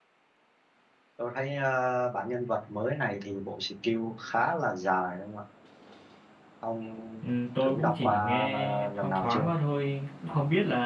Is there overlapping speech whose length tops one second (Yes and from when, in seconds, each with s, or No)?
Yes, from 7.7 s